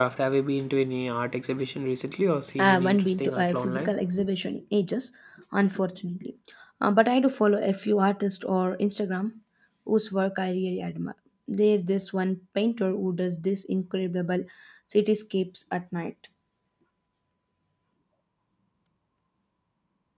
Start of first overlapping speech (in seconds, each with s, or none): 2.6 s